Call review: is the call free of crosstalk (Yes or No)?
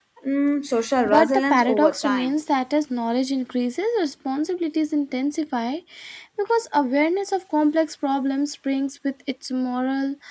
No